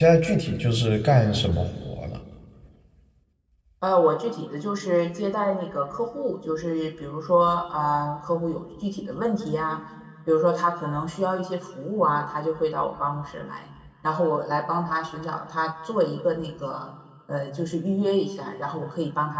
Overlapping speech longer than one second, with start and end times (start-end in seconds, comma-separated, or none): none